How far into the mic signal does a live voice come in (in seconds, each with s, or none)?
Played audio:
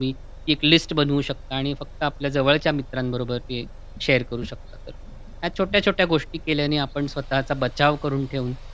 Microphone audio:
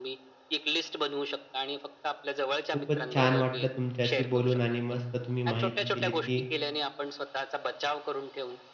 2.7 s